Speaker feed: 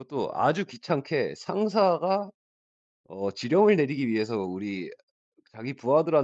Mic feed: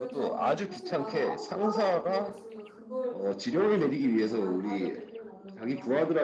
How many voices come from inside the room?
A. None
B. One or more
B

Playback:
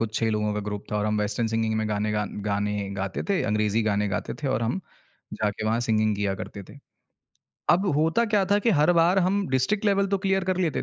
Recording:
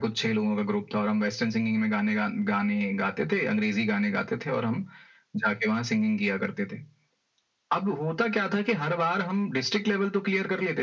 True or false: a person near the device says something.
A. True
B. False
B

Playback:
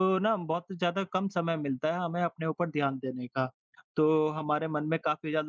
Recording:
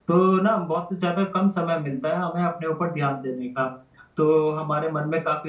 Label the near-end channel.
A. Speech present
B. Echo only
B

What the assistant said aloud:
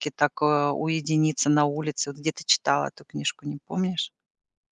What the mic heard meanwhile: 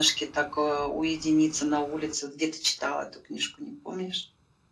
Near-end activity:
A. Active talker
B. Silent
B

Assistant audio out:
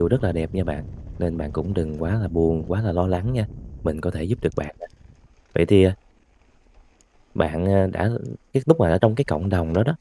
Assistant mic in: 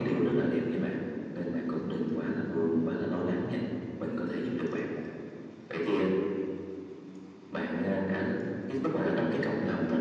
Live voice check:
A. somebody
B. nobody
B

